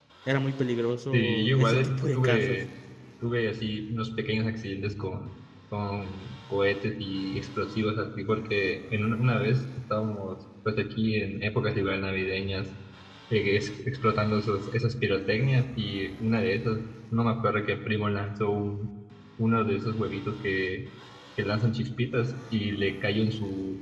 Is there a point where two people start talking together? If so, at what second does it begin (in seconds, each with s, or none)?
1.1 s